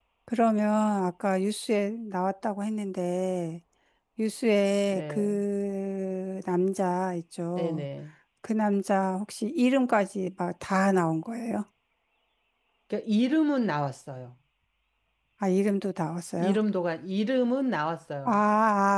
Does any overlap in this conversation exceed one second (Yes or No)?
No